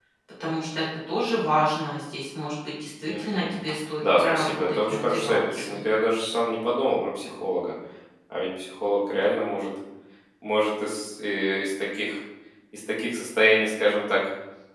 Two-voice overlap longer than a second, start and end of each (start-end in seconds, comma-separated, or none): 4.2-5.8